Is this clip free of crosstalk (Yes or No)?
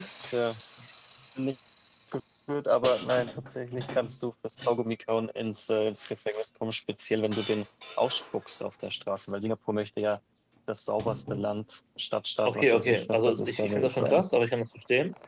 No